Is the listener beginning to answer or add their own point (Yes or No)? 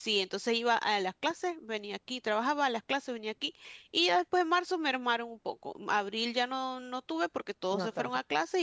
No